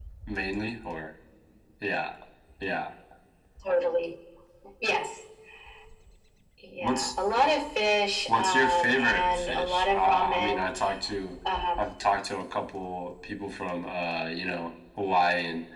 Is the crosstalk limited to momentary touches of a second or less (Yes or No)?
No